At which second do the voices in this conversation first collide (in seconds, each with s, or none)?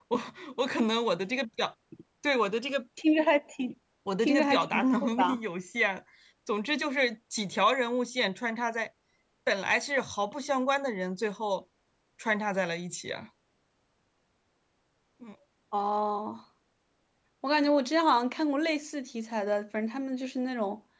4.2 s